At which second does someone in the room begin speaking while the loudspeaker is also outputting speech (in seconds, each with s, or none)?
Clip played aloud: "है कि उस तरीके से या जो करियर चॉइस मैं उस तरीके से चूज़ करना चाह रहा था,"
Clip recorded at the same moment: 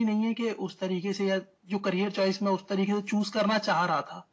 none